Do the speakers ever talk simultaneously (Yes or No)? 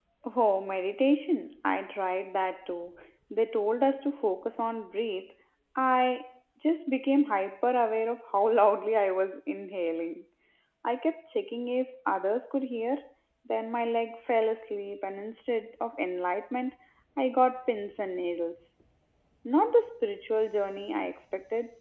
No